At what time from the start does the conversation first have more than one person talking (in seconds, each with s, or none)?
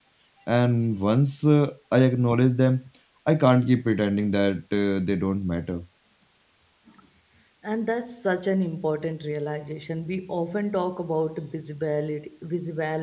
none